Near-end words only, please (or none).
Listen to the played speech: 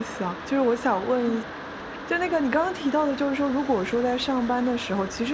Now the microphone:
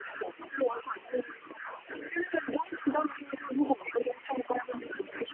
none